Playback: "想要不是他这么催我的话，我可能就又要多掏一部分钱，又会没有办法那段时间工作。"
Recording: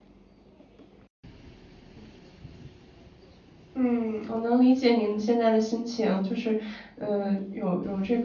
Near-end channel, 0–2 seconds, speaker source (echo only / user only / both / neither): neither